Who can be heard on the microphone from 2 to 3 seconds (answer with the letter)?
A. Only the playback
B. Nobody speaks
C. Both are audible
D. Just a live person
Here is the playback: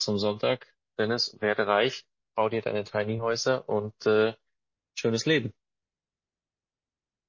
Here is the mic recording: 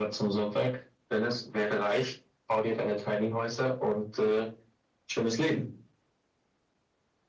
A